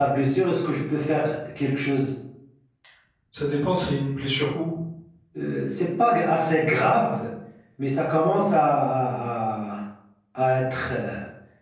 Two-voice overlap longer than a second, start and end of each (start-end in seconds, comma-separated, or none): none